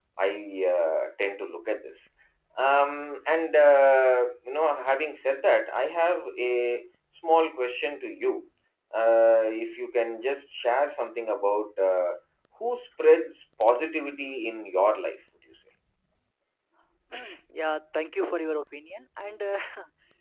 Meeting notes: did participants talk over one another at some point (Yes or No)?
No